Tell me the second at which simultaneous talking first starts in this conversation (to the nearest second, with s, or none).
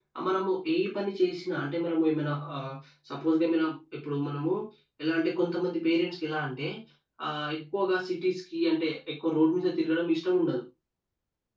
none